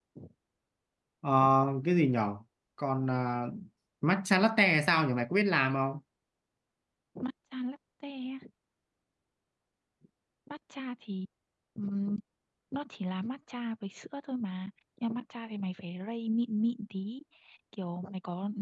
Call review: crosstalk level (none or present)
none